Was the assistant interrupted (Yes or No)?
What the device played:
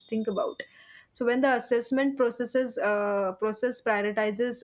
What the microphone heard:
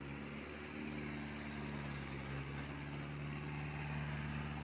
No